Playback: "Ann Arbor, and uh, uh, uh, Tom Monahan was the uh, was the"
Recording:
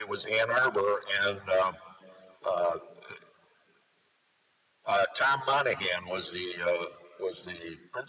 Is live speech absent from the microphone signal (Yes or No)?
Yes